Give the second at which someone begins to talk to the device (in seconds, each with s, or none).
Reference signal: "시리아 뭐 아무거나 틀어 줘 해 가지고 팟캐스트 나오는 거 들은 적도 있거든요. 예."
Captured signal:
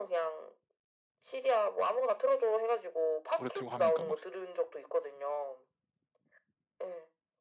3.4 s